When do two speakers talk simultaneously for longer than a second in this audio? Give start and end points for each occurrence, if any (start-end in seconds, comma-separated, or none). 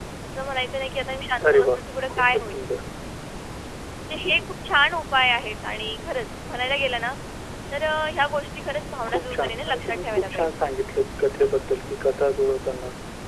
9.1-10.5